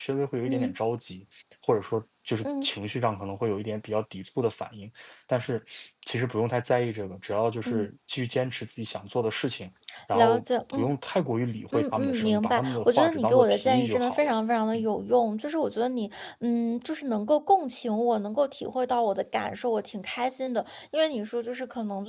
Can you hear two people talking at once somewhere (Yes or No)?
Yes